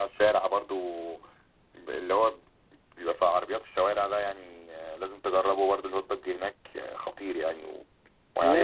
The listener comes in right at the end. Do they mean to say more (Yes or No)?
Yes